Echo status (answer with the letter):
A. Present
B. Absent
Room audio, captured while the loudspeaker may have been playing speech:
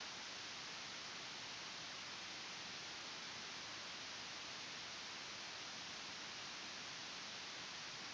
B